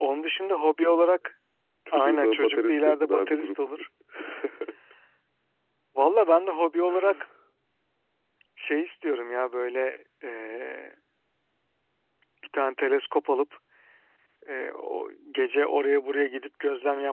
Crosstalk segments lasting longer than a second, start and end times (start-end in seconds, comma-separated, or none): 1.9-3.8